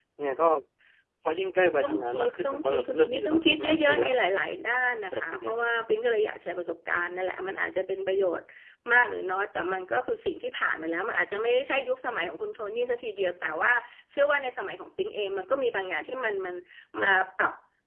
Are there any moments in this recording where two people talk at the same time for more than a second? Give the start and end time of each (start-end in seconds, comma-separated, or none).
1.8-4.1